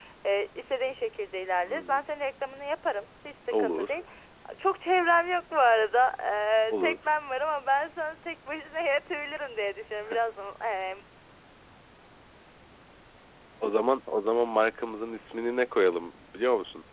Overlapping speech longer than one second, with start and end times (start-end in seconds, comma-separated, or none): none